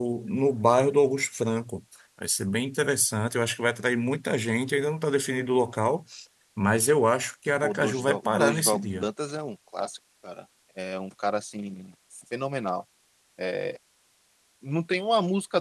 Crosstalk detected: Yes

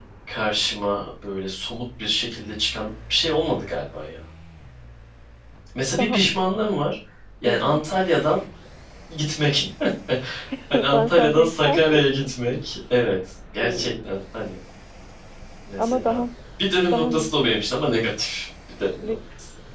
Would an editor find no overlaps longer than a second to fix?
No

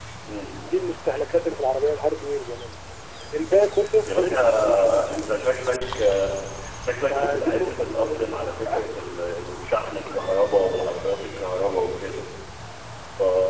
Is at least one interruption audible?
Yes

